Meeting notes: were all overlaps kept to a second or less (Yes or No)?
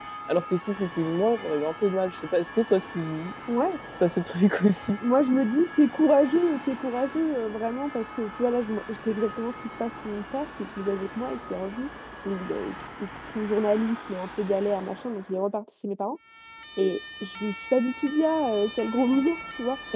Yes